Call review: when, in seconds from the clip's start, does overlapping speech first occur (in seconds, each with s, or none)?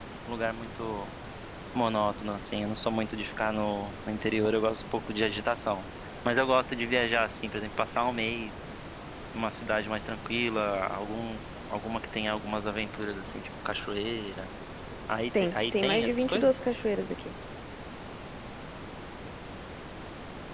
15.4 s